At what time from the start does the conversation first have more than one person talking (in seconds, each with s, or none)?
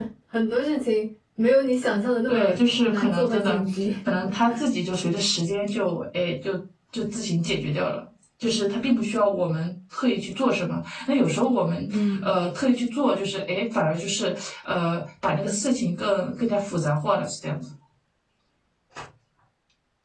2.3 s